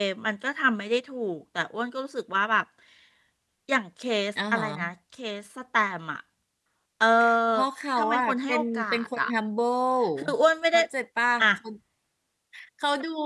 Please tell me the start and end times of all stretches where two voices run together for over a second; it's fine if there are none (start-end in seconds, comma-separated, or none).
8.0-9.3